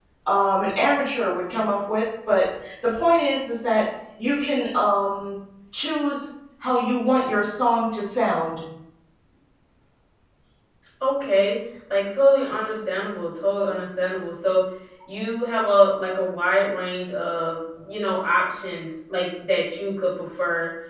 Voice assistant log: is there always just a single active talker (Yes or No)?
Yes